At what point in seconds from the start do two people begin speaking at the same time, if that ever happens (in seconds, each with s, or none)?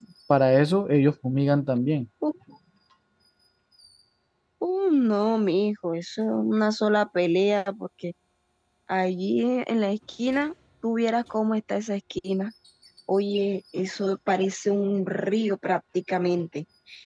none